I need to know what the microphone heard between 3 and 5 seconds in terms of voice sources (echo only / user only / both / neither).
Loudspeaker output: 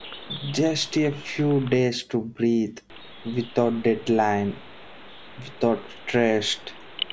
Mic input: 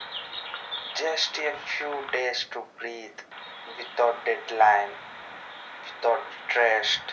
echo only